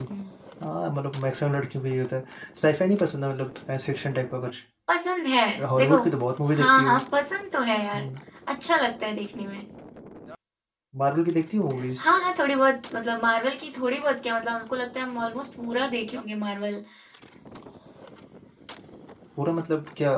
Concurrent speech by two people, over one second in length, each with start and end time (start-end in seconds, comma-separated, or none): none